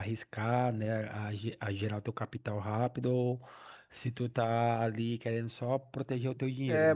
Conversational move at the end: taking over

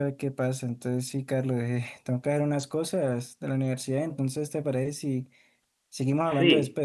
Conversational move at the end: taking over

